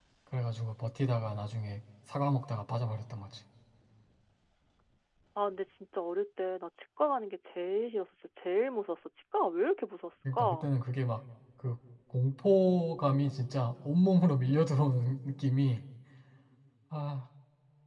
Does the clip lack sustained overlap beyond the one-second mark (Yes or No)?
Yes